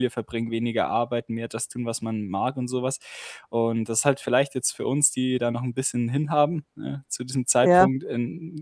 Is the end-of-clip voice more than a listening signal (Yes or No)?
No